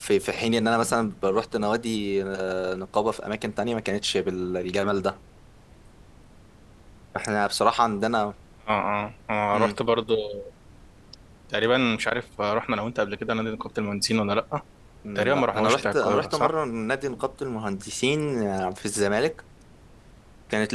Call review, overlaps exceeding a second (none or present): present